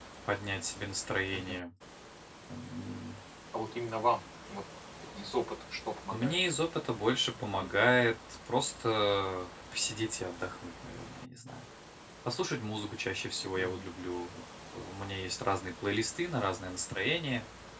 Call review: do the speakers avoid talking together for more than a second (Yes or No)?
Yes